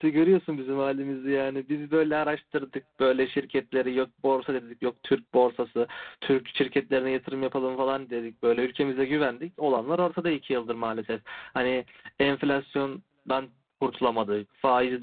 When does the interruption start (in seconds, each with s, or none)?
none